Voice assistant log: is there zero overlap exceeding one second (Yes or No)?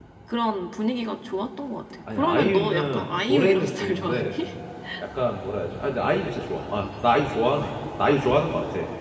No